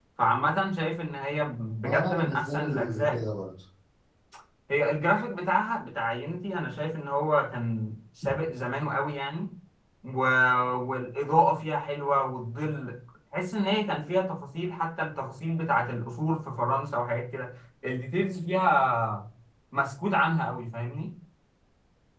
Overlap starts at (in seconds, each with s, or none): 1.8 s